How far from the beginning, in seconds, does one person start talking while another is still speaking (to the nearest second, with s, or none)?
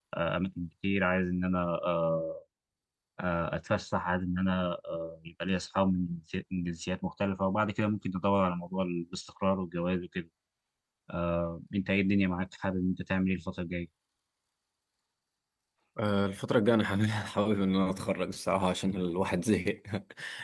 none